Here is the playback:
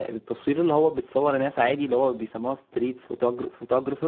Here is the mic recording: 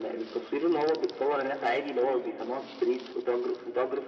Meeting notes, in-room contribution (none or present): none